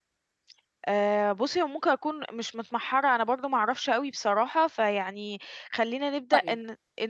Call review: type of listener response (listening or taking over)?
taking over